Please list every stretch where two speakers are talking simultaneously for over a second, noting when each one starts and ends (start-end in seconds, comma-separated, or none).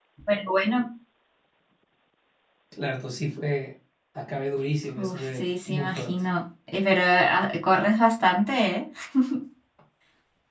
5.0-6.2